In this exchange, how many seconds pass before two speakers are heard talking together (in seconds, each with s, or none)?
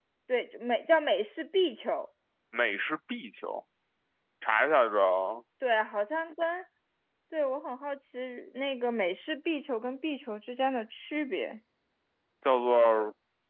none